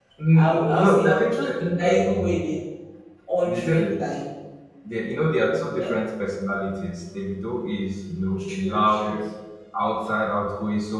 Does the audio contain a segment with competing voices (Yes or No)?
Yes